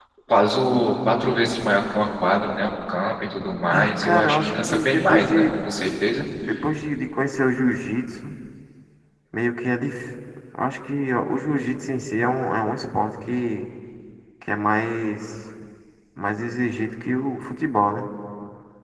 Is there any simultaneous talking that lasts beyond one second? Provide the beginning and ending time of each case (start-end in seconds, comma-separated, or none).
3.7-5.5